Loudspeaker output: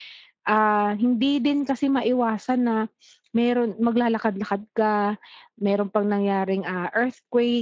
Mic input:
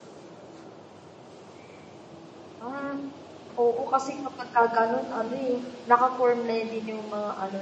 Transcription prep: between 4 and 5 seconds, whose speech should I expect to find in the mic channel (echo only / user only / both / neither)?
user only